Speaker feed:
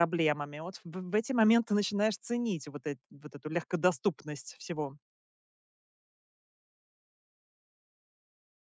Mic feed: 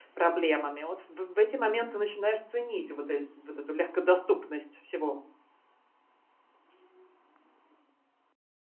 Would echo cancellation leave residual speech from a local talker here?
No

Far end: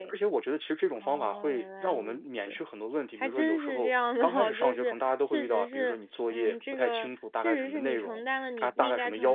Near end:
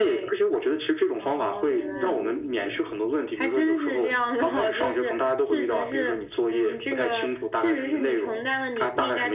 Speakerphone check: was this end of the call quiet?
No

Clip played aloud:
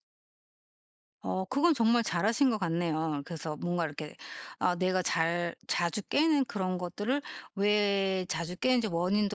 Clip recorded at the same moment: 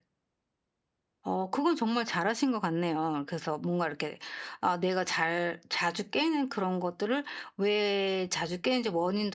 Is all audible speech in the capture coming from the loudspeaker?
Yes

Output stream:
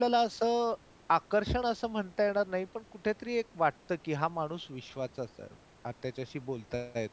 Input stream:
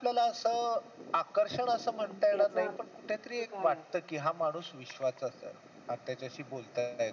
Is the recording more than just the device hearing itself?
Yes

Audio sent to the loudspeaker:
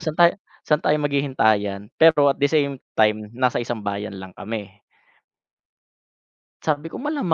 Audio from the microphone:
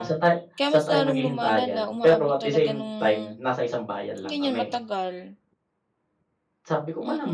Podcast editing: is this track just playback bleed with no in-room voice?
No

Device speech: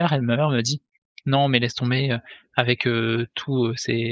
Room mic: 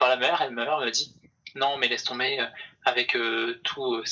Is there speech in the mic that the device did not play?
No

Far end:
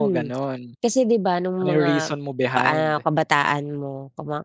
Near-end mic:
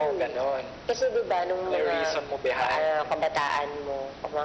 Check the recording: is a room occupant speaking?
No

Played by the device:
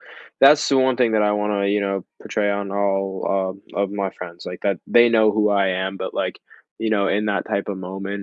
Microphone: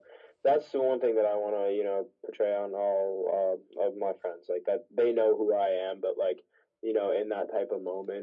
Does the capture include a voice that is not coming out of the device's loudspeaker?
No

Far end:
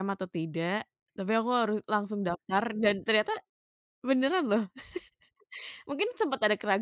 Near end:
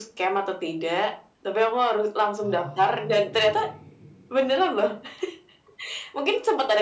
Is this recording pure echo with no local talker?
No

